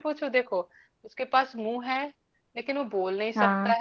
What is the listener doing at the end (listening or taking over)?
listening